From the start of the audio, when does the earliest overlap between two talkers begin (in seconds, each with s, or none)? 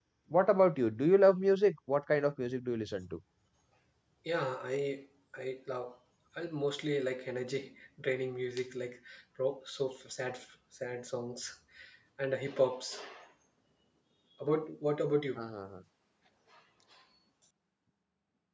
none